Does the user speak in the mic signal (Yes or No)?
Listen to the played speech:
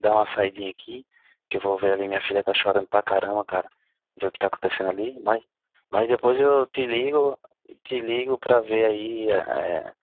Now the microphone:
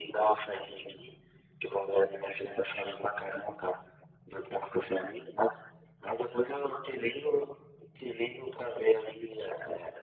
No